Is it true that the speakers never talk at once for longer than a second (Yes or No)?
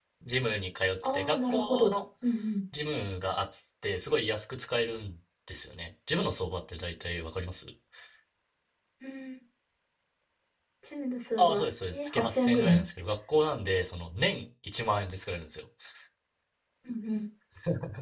No